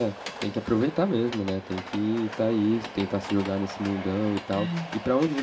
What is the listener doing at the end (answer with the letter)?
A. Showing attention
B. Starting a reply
A